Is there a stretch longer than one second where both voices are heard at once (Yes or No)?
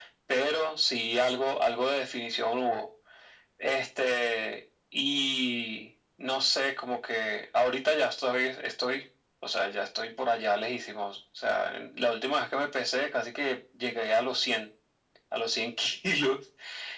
No